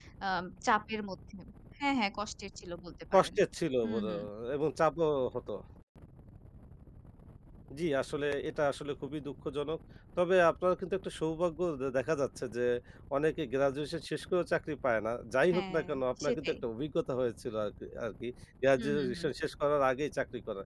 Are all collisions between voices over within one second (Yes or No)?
Yes